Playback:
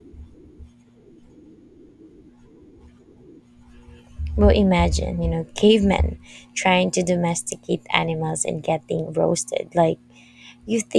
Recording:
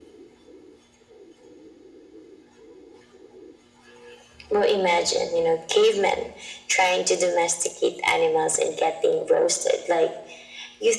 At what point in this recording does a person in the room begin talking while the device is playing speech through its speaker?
none

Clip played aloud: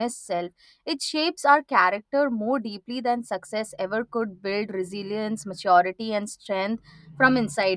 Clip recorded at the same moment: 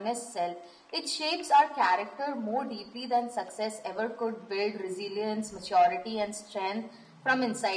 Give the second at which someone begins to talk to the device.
none

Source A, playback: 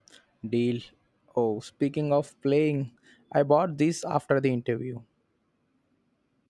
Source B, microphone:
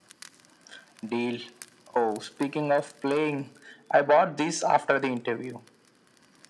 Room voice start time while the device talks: none

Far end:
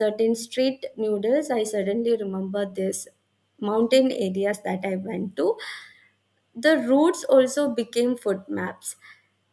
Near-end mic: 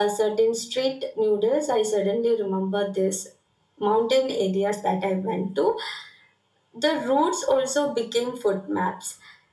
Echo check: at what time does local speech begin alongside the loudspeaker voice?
none

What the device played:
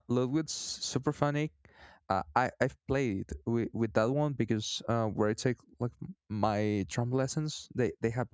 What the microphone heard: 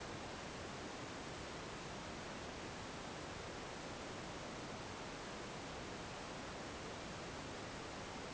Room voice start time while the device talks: none

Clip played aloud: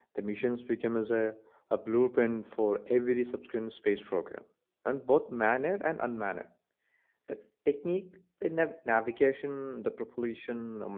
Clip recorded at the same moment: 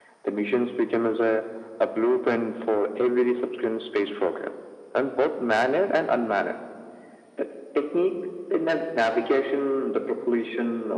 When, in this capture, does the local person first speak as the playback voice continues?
none

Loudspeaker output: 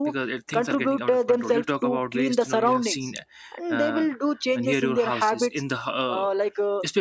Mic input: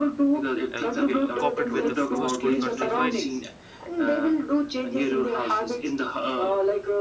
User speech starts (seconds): 0.7 s

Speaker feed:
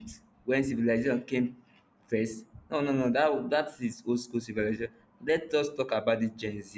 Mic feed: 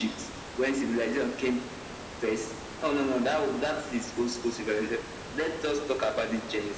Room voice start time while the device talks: none

